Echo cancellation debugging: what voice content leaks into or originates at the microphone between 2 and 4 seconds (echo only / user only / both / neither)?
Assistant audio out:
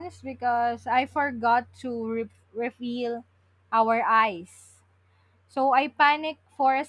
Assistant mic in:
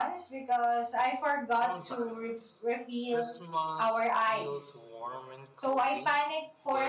both